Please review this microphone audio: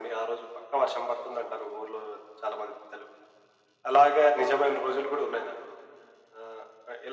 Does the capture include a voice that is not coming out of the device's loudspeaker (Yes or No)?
No